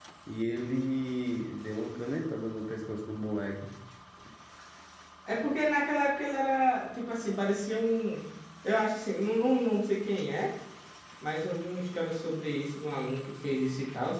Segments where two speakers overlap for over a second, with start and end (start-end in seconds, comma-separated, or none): none